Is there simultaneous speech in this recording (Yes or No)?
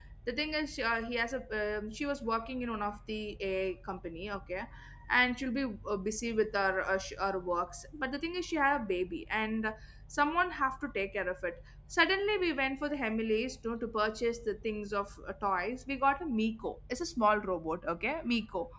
No